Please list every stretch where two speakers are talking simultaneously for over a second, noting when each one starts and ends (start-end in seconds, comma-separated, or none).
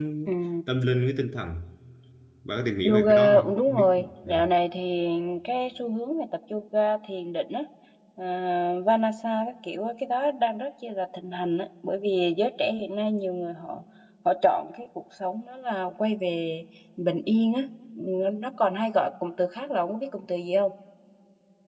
2.8-4.3